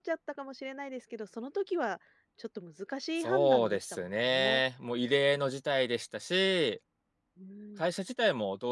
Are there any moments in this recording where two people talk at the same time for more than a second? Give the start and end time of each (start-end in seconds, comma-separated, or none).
3.2-4.6